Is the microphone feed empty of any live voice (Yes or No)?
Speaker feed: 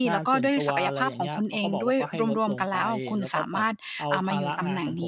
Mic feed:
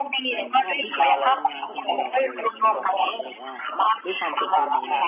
No